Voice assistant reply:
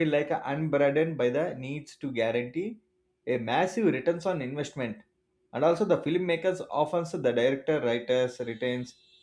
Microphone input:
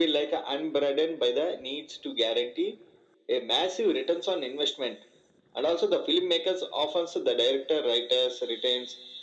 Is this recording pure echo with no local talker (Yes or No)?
Yes